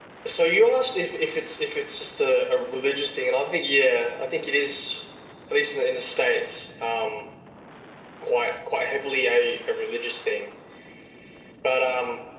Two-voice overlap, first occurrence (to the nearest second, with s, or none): none